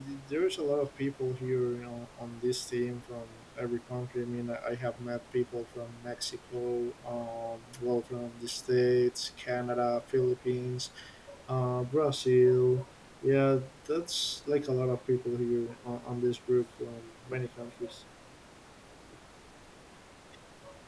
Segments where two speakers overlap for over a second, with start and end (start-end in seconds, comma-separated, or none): none